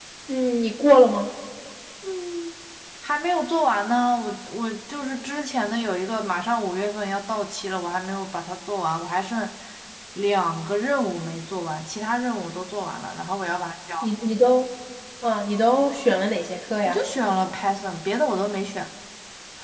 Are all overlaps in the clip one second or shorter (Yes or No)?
Yes